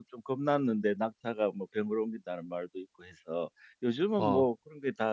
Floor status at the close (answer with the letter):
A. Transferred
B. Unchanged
B